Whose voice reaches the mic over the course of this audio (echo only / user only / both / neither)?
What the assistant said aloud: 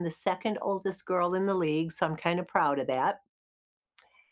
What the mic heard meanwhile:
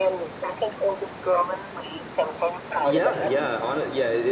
both